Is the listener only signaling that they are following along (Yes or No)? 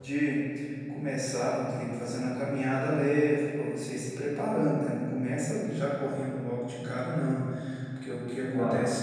Yes